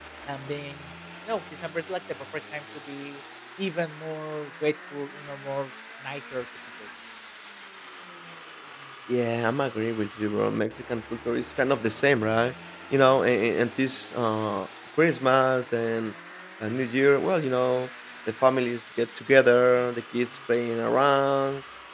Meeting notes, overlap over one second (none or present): none